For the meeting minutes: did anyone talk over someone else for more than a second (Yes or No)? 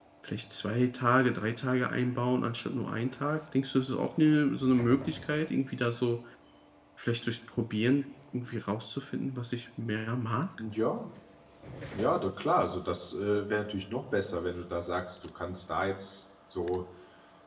No